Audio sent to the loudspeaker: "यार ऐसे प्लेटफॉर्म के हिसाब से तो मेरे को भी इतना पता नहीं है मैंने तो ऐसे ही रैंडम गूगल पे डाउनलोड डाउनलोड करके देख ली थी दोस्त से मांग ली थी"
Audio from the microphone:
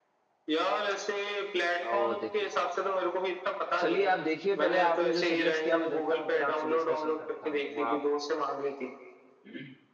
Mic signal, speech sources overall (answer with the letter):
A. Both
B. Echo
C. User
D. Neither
A